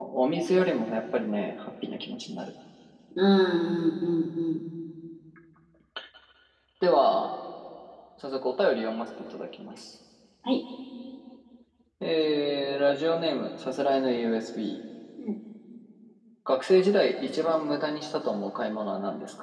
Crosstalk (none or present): none